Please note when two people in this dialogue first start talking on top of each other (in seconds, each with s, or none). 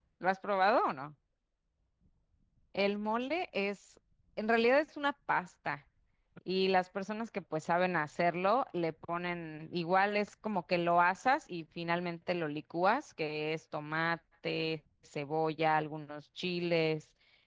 none